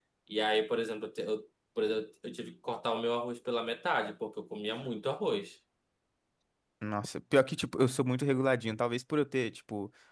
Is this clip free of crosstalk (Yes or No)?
Yes